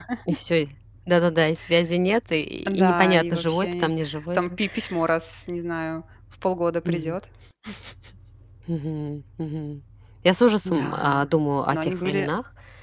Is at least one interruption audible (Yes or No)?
Yes